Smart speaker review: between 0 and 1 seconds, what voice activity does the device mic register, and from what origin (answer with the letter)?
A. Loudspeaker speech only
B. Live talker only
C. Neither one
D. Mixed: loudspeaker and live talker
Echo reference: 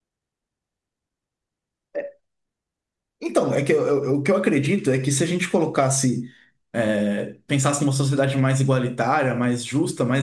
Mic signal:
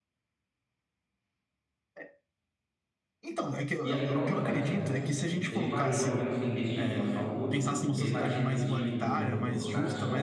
C